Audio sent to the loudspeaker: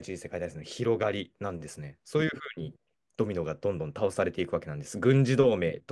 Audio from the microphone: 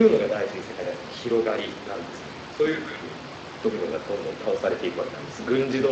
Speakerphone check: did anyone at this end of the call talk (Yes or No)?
No